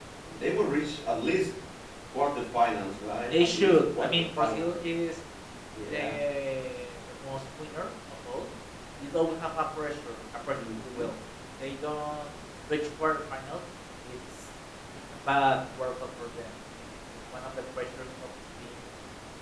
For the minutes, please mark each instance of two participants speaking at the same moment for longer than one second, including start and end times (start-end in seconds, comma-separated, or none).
3.3-4.8